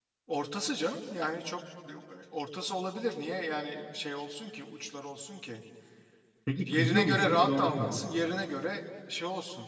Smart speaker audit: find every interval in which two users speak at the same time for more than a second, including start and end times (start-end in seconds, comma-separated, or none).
6.6-8.0